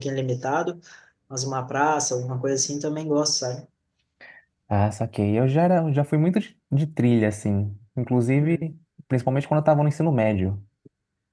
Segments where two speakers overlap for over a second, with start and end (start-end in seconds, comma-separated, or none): none